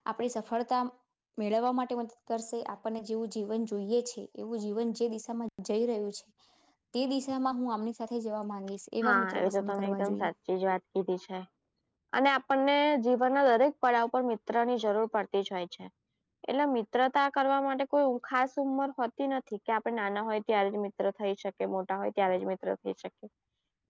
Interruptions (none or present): present